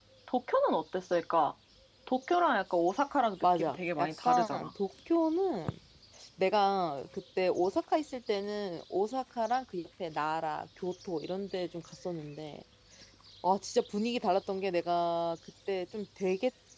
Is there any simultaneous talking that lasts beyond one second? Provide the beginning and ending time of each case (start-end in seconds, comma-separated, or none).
3.4-4.7